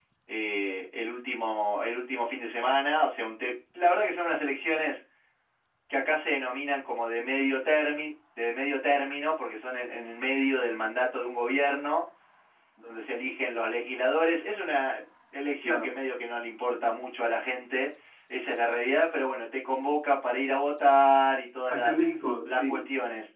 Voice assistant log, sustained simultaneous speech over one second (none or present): none